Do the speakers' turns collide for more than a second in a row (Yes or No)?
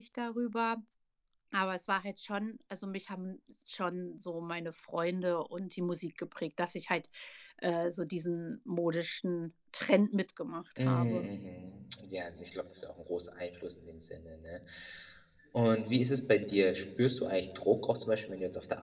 No